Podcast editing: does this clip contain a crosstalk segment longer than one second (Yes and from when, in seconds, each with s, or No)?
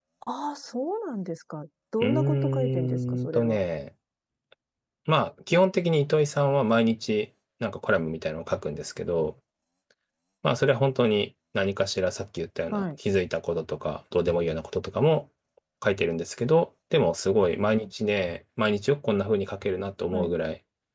Yes, from 2.0 s